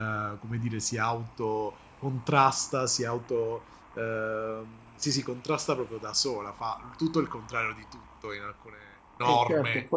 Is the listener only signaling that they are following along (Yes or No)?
No